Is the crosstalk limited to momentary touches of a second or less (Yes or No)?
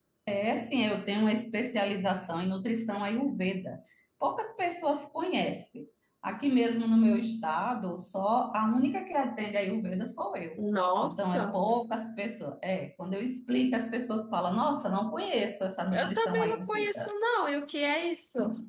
No